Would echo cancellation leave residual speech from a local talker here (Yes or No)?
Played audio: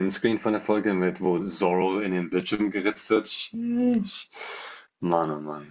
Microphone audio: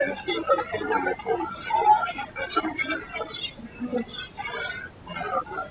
No